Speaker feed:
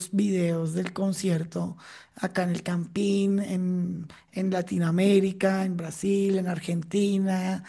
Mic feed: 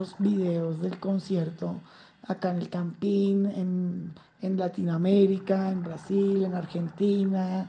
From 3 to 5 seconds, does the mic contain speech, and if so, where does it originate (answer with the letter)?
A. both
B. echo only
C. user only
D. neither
B